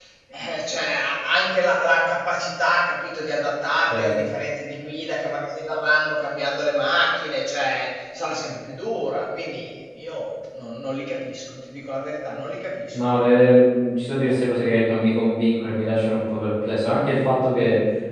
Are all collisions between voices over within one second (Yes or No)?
Yes